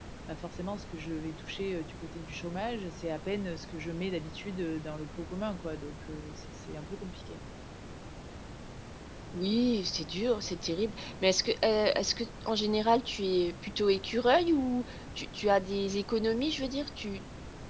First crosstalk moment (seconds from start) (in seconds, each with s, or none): none